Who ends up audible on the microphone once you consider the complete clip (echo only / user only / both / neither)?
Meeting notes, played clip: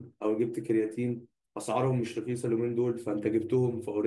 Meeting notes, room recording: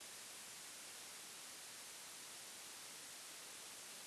neither